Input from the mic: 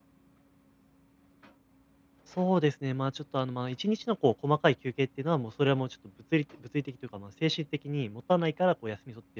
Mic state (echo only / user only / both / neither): user only